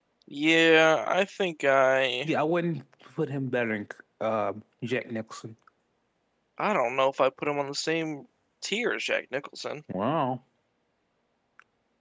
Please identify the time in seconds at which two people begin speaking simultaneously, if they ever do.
none

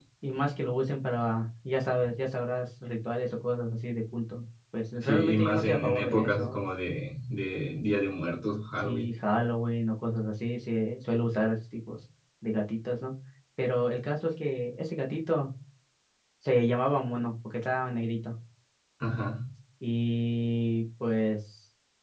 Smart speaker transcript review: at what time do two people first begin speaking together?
5.0 s

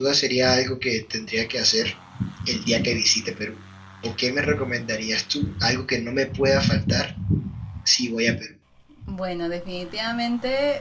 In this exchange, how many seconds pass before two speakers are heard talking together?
none

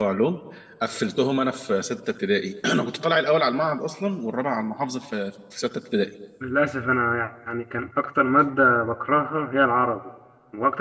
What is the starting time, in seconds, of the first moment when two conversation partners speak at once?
none

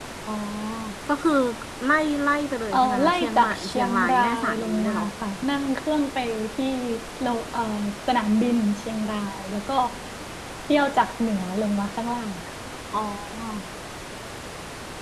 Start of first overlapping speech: 2.7 s

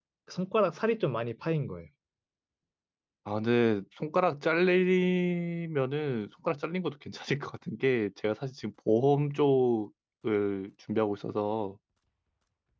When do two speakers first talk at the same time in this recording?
none

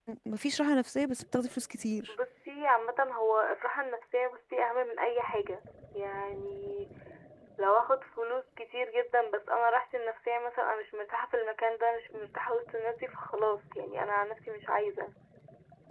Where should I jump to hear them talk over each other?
none

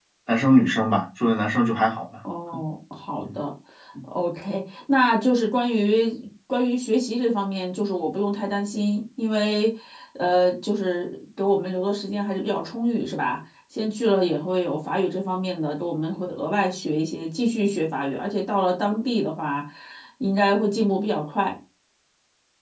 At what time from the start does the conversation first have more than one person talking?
none

